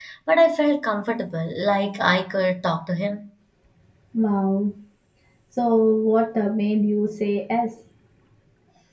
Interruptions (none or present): none